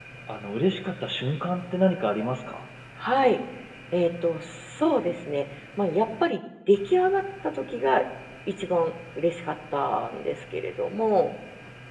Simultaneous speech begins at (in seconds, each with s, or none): none